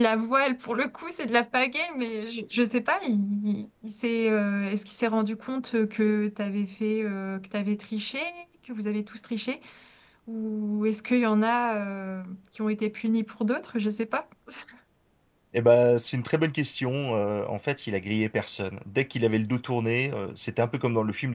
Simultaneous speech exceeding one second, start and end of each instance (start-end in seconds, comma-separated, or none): none